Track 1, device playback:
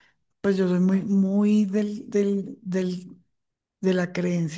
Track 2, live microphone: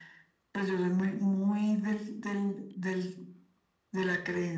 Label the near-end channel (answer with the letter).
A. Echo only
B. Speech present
A